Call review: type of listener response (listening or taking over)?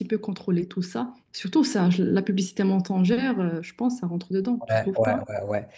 taking over